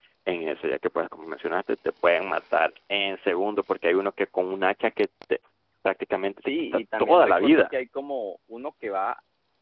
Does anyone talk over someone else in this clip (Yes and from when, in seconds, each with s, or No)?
Yes, from 6.4 s